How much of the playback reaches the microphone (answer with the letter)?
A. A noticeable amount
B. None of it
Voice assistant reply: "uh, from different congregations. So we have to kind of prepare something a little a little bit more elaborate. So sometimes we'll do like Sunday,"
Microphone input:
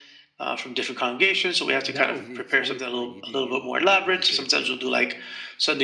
A